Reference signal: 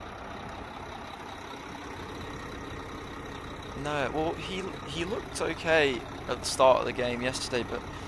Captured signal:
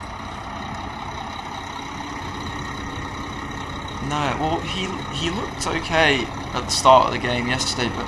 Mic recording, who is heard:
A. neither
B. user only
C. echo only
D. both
C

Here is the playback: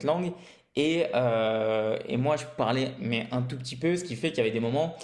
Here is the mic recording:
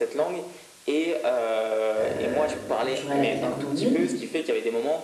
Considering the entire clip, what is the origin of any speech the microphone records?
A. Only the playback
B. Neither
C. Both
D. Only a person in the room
C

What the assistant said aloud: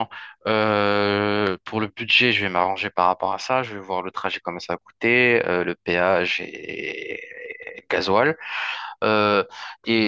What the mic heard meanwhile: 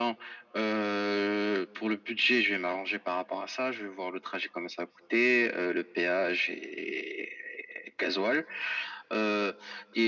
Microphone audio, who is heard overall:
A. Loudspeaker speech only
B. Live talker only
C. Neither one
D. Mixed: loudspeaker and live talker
A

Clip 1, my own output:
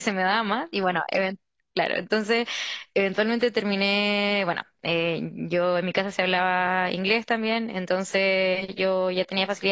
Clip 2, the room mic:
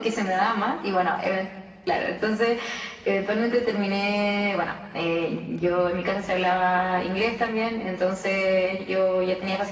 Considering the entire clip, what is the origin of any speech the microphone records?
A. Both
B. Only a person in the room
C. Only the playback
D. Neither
C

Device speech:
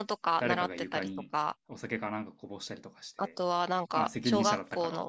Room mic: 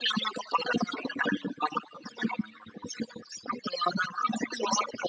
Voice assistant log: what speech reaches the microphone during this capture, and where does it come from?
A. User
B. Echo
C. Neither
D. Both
B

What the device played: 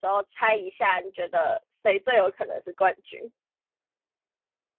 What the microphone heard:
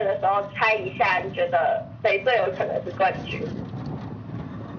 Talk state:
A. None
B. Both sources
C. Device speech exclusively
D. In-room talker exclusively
C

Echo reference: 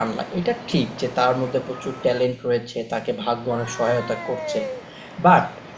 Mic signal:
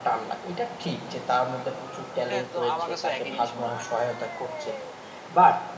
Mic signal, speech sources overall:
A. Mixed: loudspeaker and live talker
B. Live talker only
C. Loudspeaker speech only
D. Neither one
A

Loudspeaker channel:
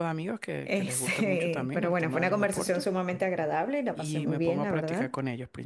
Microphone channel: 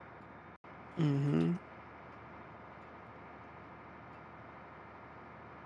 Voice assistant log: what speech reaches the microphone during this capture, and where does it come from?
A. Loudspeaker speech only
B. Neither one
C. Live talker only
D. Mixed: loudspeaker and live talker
C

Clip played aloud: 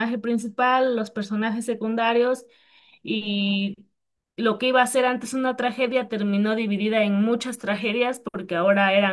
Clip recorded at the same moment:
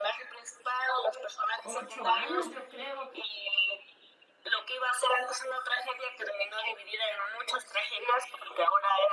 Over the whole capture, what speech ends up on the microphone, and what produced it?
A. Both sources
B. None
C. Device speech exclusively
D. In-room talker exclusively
A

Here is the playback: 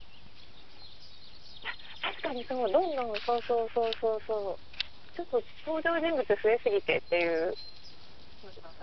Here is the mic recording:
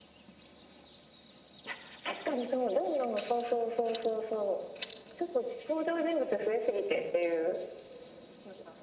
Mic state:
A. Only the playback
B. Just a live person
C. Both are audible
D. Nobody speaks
A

